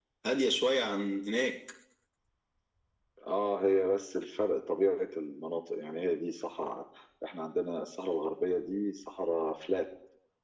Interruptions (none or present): none